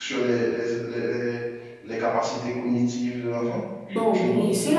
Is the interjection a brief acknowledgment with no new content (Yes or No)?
No